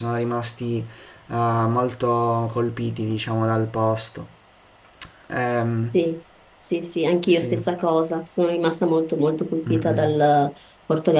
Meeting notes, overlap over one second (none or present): none